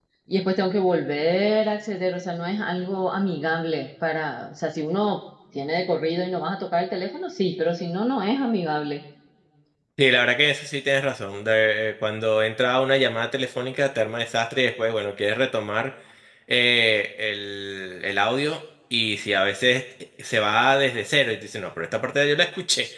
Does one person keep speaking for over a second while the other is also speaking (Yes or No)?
No